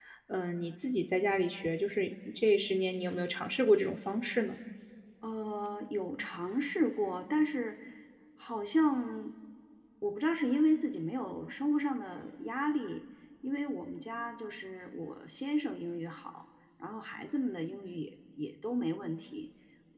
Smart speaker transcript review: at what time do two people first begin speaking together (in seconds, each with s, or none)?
none